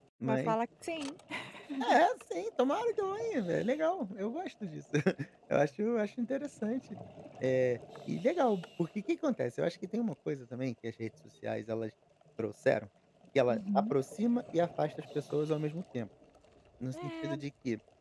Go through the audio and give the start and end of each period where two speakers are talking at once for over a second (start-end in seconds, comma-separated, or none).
none